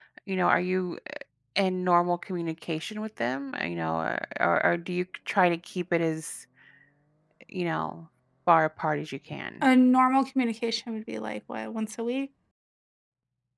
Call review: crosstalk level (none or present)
none